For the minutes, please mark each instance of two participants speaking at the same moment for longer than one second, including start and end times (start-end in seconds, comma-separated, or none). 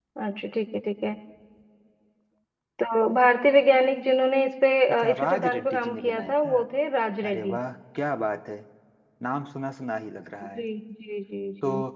5.0-6.5